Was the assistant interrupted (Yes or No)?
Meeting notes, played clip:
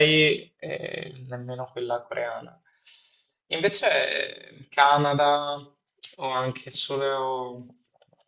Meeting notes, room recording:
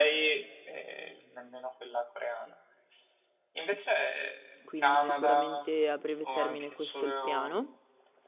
Yes